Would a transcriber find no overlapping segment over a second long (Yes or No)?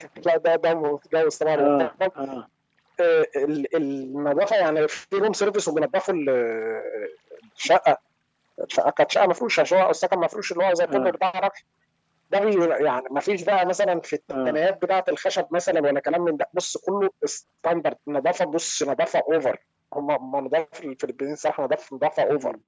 Yes